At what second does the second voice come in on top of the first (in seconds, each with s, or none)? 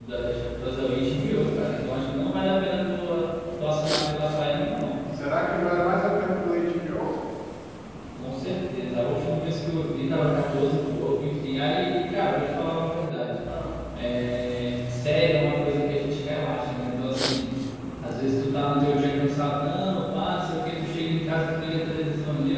none